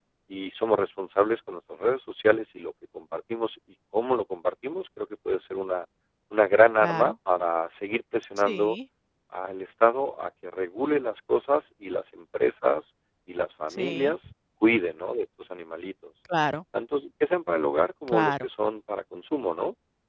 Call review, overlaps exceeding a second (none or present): none